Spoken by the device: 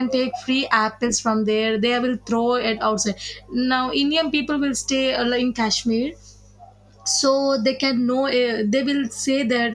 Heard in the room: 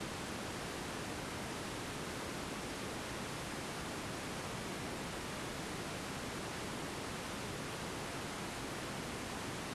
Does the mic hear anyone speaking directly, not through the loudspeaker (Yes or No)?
No